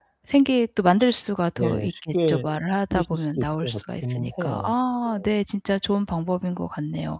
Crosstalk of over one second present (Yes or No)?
Yes